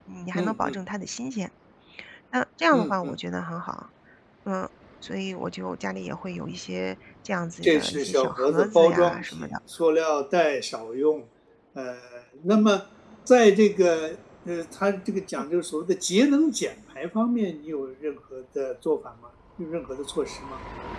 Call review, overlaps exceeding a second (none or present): present